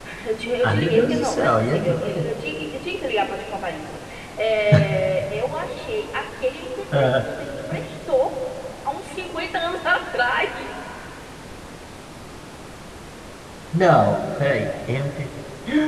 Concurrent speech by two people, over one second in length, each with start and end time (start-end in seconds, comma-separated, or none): 0.6-2.2